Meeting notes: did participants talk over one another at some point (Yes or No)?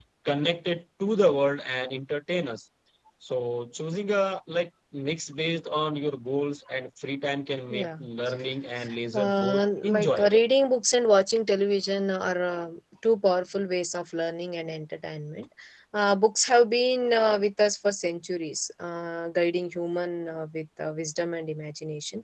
Yes